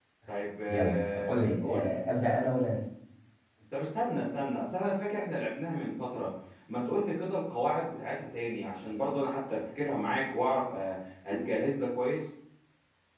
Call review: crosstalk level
present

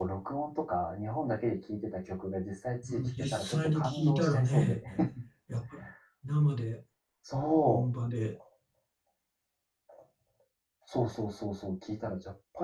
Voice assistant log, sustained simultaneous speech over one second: present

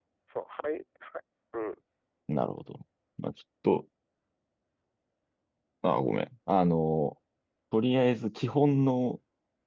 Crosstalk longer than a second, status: none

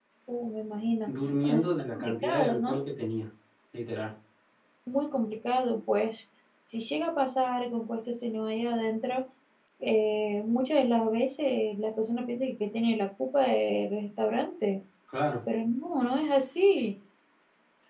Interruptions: present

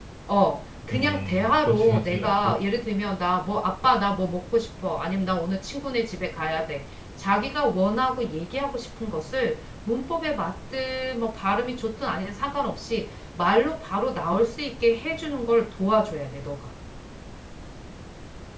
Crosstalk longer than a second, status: present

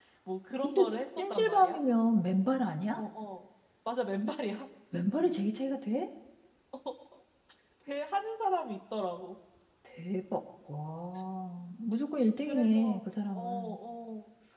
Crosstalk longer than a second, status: present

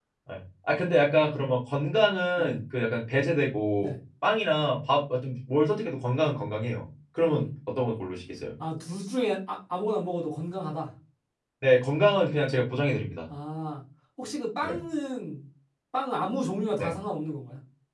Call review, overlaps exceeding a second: none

